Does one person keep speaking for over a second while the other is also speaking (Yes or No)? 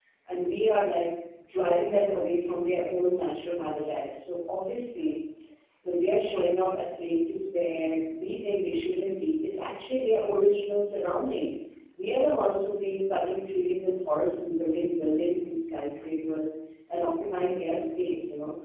No